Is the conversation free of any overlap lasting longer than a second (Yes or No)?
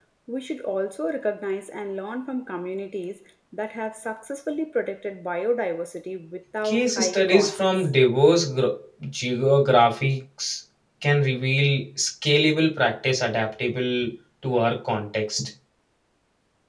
No